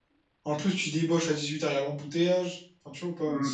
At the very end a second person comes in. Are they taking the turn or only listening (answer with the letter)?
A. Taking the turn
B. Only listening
A